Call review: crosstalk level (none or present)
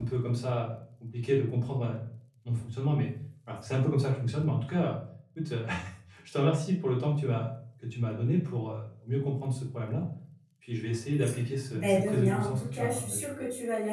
present